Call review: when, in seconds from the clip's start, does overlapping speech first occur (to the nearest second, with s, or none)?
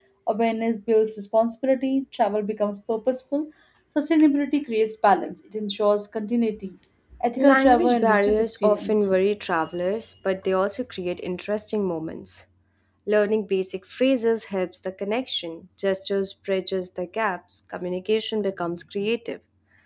7 s